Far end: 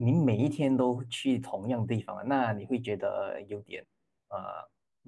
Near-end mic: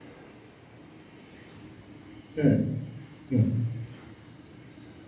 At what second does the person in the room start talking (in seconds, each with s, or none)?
2.3 s